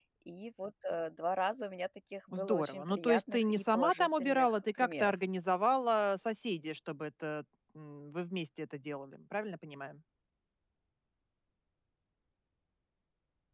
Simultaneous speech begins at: 2.3 s

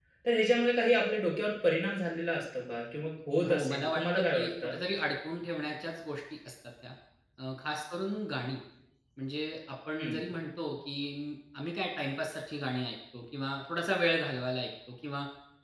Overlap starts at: 3.4 s

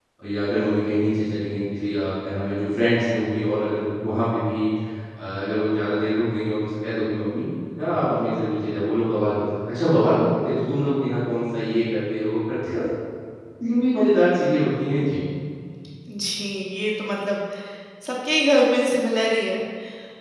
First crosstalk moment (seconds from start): none

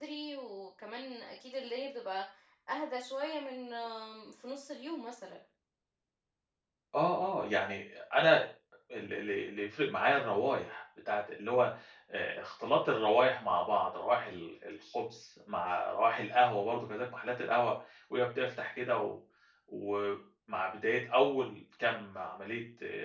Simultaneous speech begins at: none

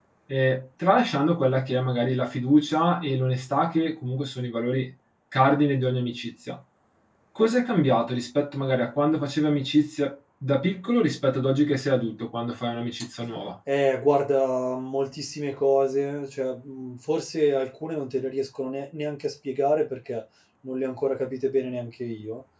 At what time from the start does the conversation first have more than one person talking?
none

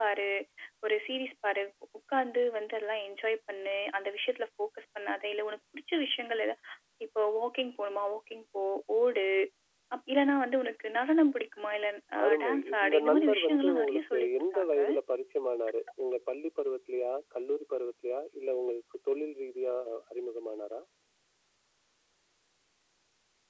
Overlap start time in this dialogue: 12.2 s

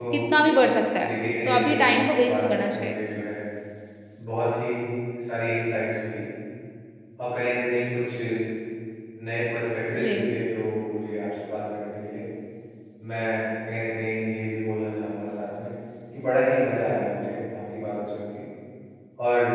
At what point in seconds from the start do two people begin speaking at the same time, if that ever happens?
1.5 s

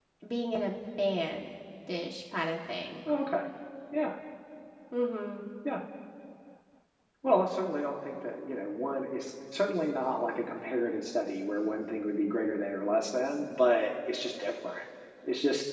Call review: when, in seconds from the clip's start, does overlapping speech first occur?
none

